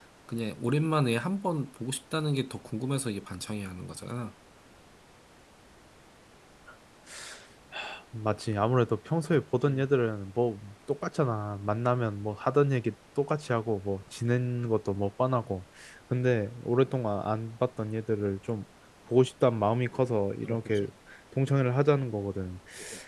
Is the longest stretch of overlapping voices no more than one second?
Yes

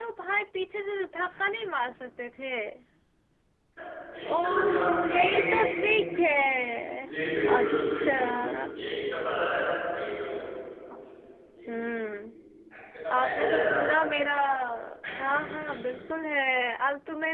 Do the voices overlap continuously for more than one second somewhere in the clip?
Yes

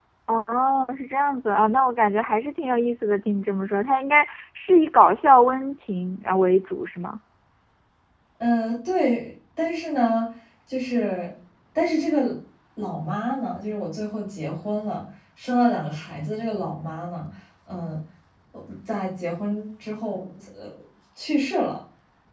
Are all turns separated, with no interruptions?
Yes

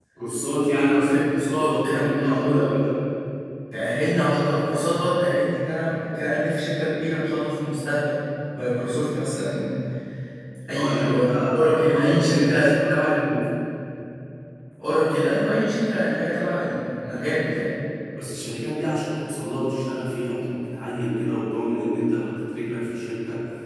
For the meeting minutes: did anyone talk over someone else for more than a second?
Yes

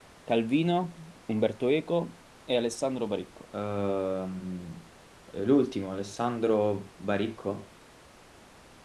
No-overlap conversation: Yes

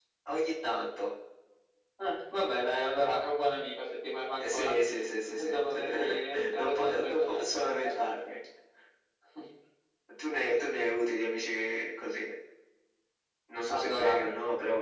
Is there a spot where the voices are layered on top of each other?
Yes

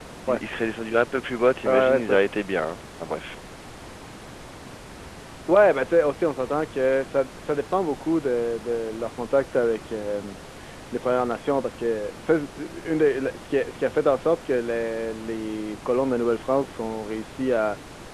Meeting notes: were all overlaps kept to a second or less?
Yes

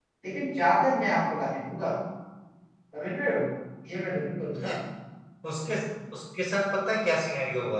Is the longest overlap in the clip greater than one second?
No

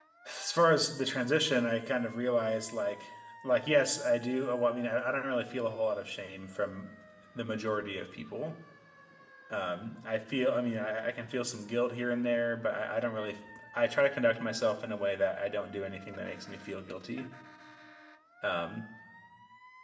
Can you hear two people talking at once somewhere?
No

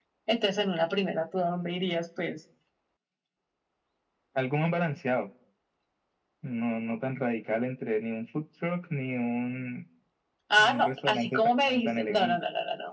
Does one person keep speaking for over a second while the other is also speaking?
Yes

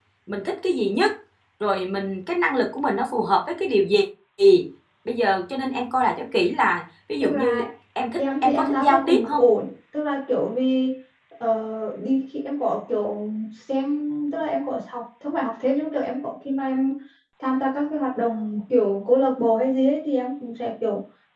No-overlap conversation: No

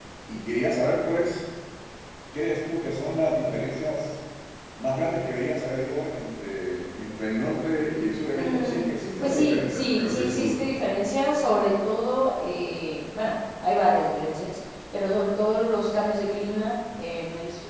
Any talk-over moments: Yes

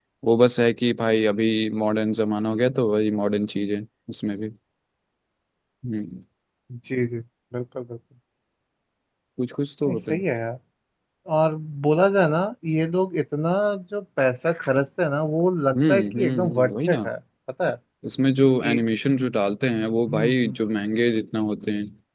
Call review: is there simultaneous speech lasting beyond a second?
Yes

